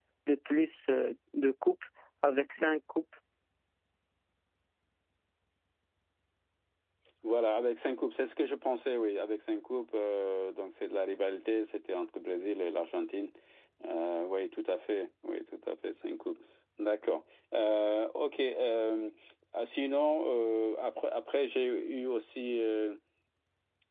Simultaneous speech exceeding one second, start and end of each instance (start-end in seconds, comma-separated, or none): none